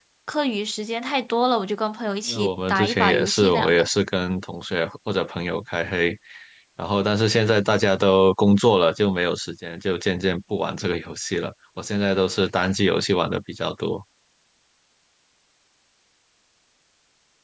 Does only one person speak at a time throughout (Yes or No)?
No